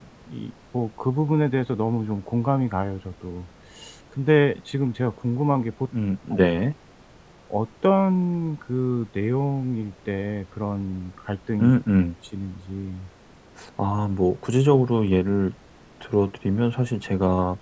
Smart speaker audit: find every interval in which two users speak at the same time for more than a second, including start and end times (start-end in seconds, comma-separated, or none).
none